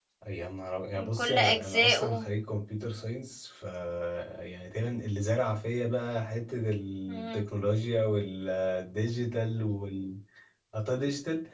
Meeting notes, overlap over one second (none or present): present